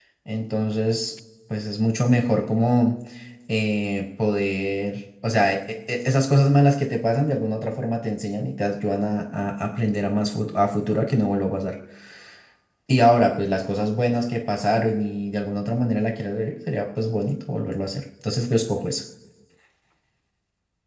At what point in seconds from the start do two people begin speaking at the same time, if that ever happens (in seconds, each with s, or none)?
none